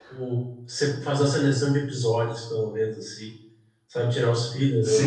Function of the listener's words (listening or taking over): taking over